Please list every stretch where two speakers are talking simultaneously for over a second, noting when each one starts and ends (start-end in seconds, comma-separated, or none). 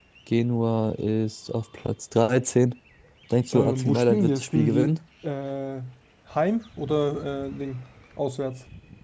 3.5-4.9